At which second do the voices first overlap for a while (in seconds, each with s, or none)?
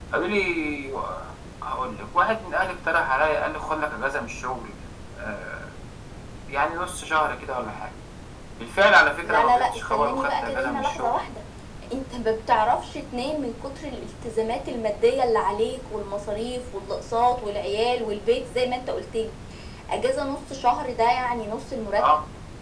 9.2 s